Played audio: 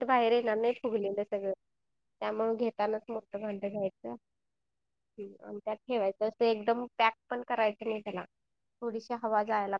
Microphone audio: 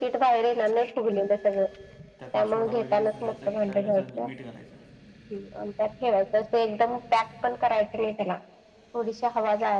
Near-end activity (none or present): present